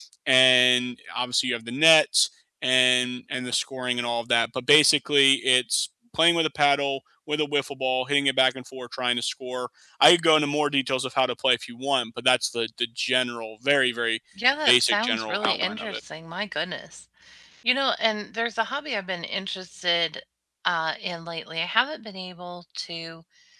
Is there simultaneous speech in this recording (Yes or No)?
Yes